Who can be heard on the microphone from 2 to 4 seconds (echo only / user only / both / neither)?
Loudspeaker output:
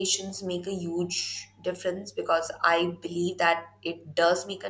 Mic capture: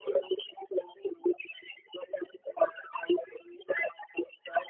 echo only